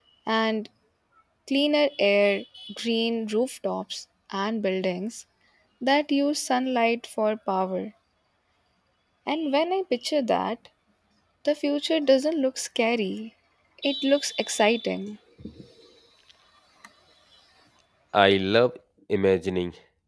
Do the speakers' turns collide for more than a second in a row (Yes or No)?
No